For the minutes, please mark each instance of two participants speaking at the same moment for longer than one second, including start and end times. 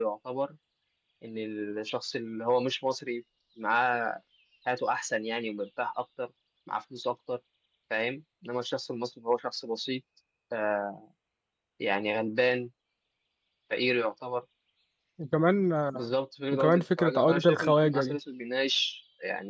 16.5-18.2

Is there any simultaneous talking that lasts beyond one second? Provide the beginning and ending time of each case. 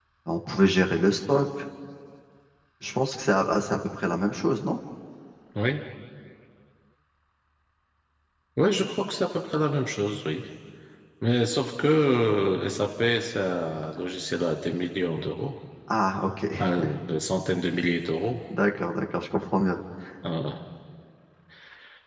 none

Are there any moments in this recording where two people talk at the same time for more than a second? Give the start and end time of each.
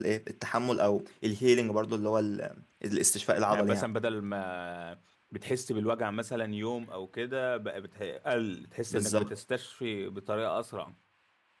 none

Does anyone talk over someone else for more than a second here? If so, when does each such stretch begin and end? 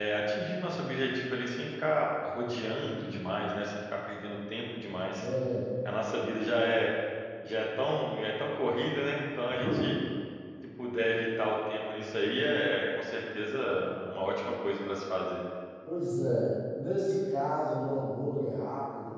none

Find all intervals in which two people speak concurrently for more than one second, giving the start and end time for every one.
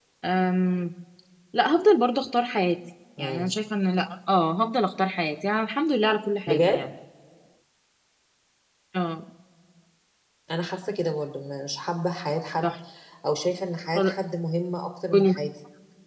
none

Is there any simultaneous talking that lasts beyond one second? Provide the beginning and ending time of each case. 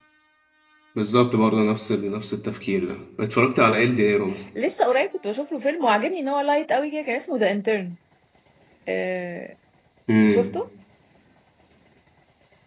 none

